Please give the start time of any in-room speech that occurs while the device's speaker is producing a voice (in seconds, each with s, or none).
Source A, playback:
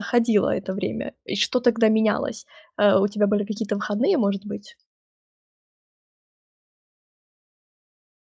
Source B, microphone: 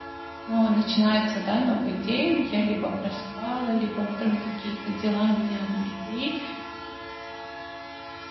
0.5 s